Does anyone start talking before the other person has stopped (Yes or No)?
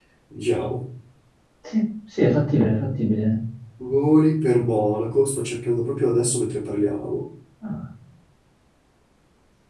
No